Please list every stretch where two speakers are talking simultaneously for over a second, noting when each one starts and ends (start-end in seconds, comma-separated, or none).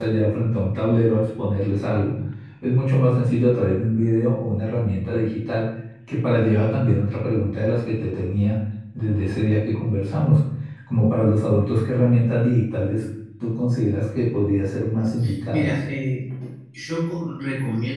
none